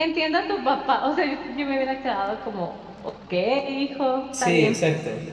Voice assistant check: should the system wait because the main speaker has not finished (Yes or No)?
No